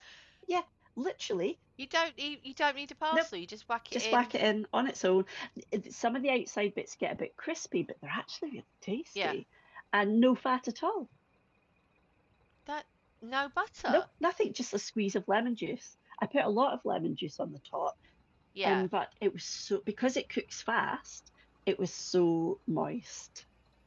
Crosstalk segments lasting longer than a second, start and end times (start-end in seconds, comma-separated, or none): none